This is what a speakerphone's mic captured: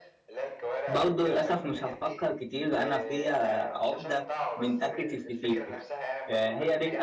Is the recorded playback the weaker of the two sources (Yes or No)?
Yes